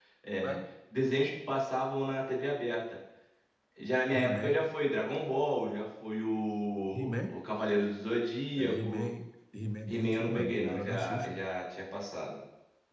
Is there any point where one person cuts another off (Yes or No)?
Yes